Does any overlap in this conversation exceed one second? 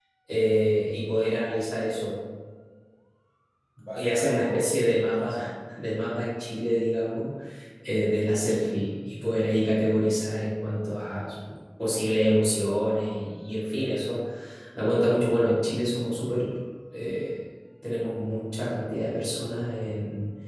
Yes, from 3.9 s

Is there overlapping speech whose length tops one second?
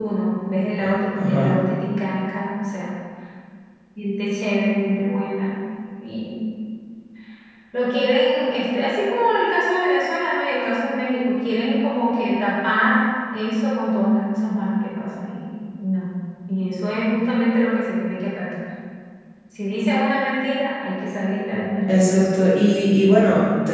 No

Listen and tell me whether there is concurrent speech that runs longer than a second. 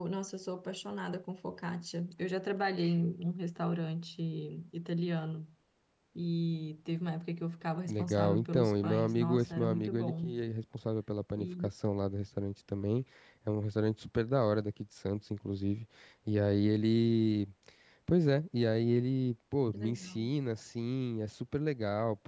Yes, from 7.9 s

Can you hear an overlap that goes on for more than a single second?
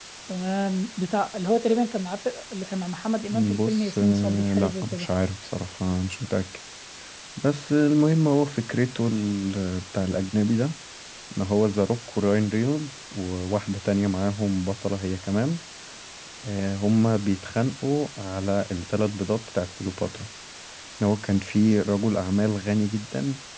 Yes, from 3.2 s

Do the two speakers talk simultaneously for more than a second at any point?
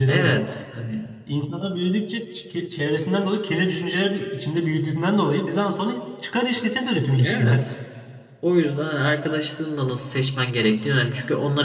No

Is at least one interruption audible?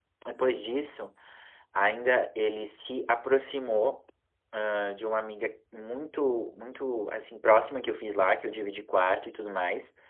No

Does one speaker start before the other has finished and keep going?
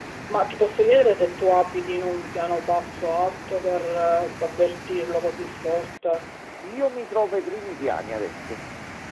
No

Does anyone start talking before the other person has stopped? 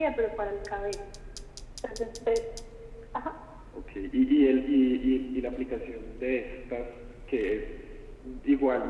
No

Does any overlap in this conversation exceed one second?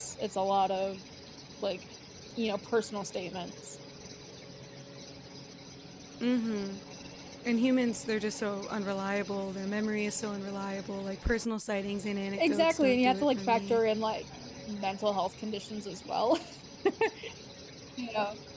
Yes, from 12.4 s

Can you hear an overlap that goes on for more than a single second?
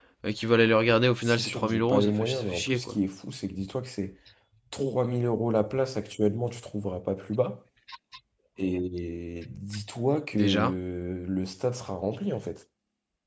Yes, from 1.2 s

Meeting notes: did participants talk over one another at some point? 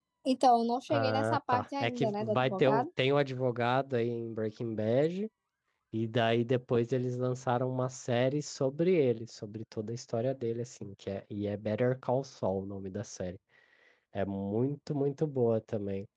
Yes, from 0.9 s

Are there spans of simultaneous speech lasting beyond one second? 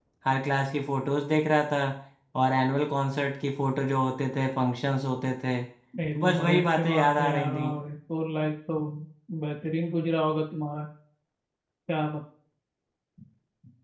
Yes, from 5.9 s

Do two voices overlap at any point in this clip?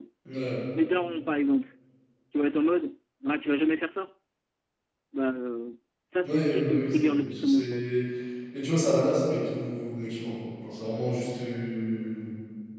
Yes, from 6.2 s

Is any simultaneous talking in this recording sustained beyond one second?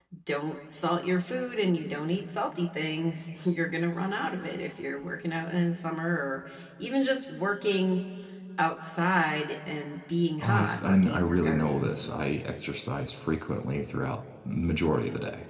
Yes, from 10.4 s

